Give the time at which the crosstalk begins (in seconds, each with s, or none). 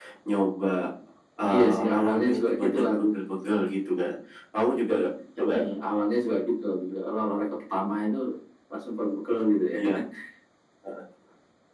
1.5 s